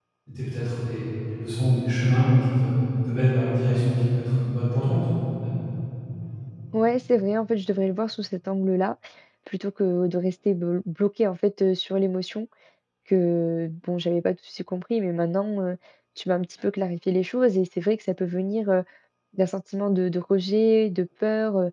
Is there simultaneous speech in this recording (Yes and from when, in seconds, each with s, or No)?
No